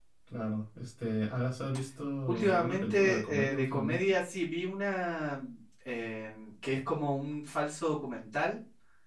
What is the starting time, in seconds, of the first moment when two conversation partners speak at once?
2.3 s

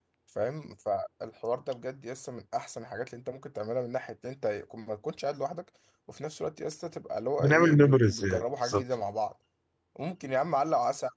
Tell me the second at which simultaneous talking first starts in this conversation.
7.4 s

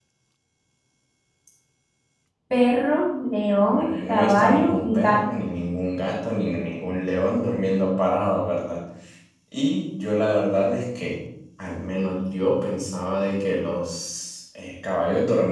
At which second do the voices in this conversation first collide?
3.7 s

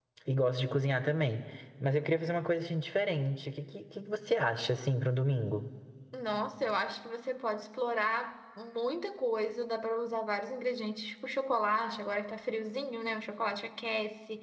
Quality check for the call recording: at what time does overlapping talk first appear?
none

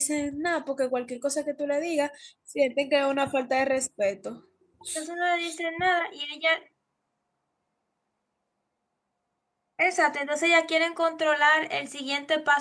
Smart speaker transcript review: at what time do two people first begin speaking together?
none

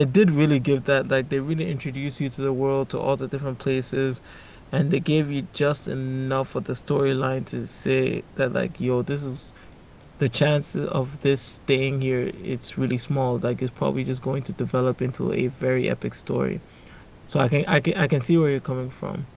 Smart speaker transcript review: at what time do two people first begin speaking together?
none

